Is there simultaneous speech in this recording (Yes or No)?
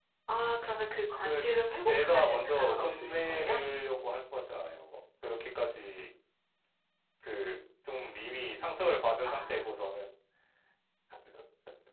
Yes